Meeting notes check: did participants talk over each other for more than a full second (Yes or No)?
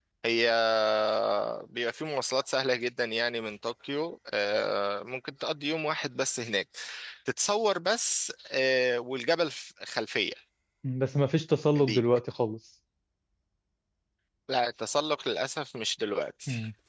No